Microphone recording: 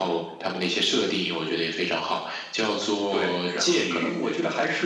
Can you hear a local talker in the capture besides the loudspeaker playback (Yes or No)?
No